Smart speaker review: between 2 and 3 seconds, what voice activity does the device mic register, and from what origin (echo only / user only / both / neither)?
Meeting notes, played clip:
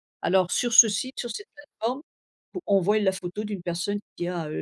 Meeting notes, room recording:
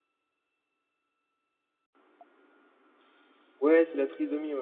neither